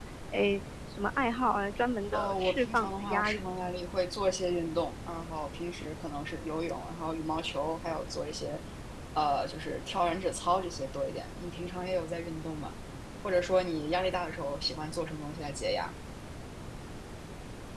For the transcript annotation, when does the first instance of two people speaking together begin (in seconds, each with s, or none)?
2.1 s